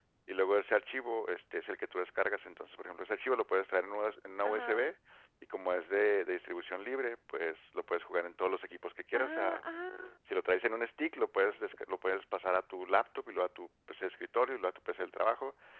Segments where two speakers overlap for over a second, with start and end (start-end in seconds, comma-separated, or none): none